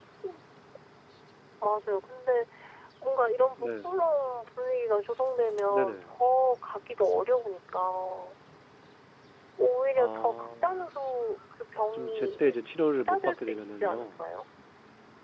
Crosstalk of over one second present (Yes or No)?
Yes